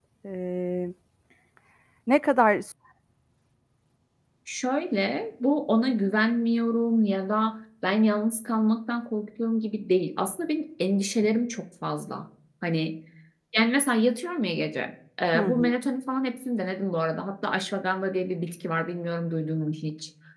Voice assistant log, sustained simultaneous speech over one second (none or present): none